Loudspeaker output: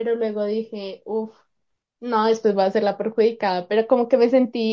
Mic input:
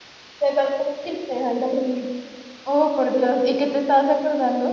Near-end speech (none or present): present